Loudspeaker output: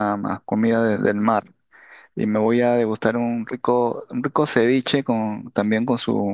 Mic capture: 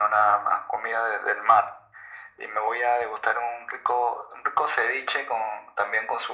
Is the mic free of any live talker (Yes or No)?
Yes